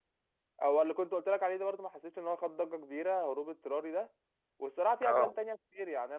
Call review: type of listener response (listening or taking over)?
listening